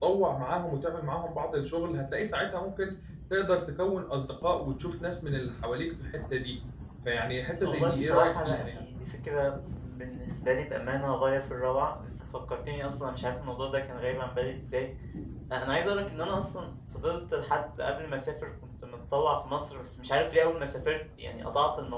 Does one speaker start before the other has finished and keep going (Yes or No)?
Yes